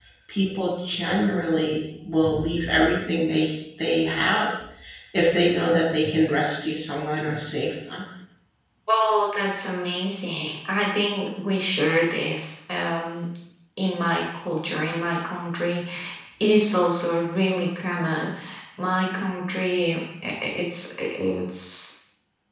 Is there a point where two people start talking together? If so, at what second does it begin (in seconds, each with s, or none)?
none